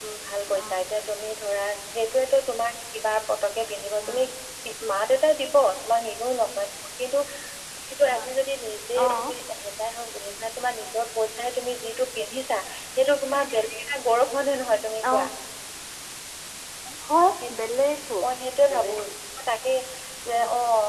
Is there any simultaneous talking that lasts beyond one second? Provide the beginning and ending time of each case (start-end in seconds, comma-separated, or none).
none